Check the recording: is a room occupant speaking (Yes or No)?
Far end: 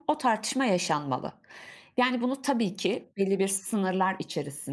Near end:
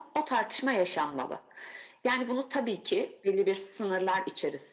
No